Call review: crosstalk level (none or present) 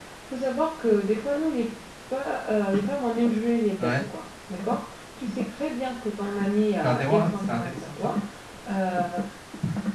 present